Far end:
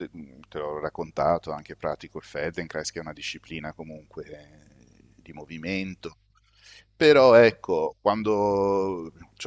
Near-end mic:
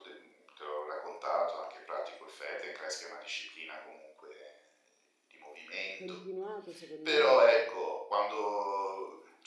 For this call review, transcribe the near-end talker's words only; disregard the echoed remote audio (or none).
continuato, secondo me